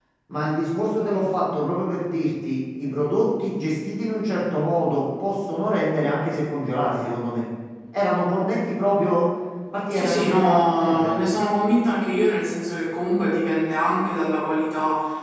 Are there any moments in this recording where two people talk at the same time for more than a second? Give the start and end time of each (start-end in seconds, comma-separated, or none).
9.9-11.2